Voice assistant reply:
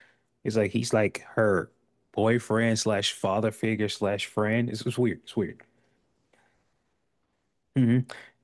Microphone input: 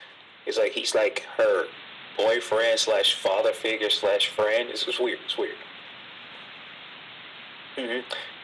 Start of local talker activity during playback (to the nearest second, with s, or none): none